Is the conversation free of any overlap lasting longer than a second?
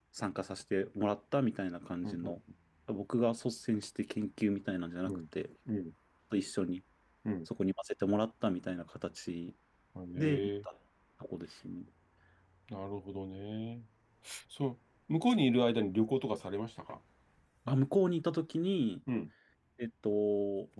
Yes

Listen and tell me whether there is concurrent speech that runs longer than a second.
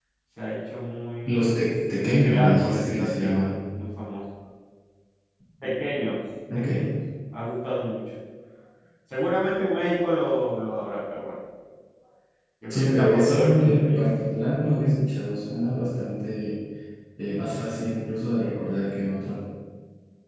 Yes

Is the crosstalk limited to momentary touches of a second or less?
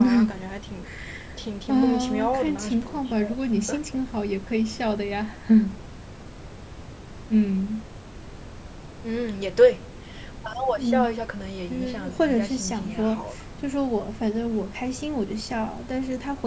No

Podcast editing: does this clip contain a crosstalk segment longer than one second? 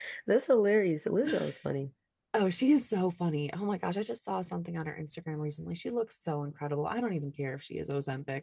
No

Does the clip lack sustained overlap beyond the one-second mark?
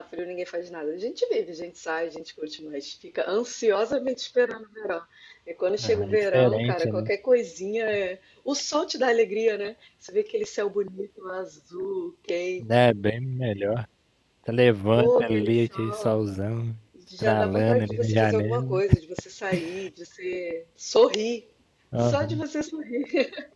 No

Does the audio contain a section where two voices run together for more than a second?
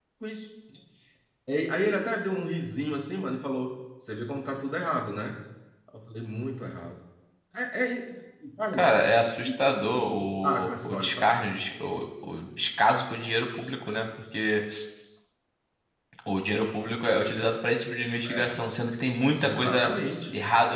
Yes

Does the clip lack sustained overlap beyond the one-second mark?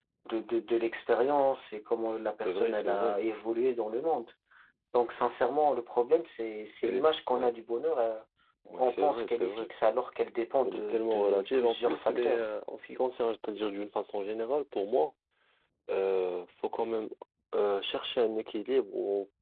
No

